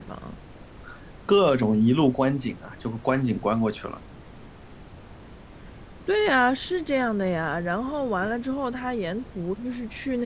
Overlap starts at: none

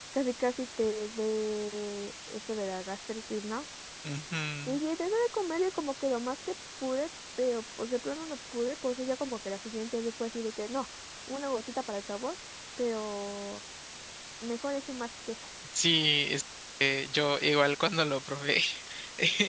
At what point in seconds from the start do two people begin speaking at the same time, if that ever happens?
none

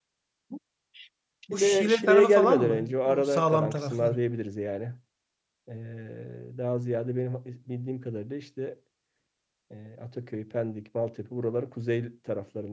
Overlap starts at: 1.5 s

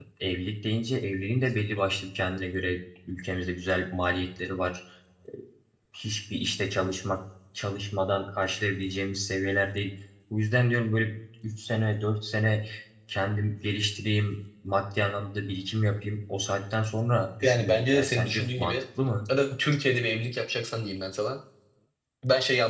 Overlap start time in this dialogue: 17.4 s

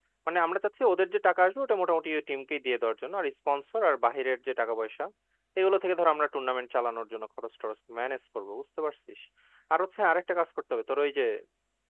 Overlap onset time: none

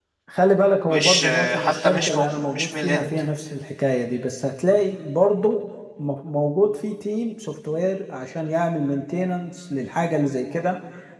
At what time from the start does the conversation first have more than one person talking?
0.9 s

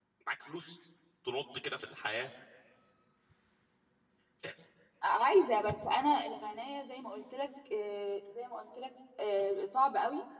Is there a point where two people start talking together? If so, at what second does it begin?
none

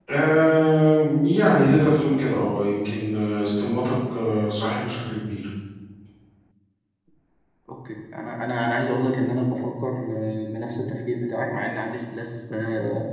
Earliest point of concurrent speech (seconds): none

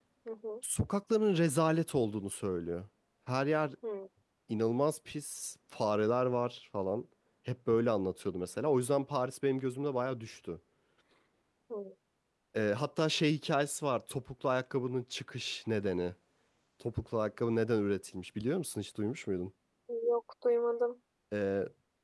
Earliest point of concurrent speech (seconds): none

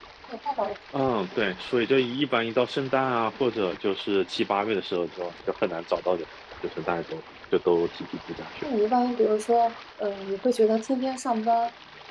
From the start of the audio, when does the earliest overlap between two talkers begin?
none

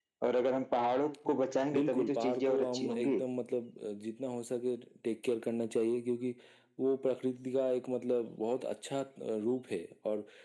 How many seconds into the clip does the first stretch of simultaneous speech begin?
1.7 s

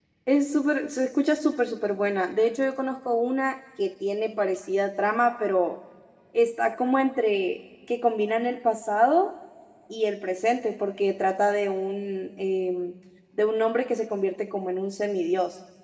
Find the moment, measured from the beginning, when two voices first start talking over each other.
none

